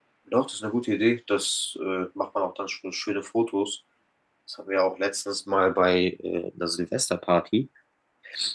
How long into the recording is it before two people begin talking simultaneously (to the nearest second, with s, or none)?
none